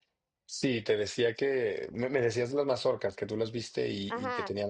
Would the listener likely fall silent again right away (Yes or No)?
No